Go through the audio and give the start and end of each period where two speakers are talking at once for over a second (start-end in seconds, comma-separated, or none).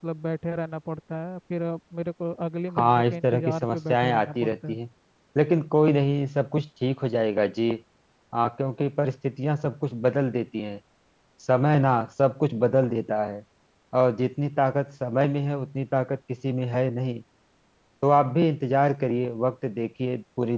2.8-4.8